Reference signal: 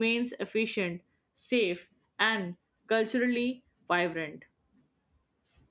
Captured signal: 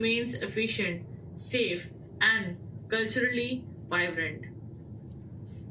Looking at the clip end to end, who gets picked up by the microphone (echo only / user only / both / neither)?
echo only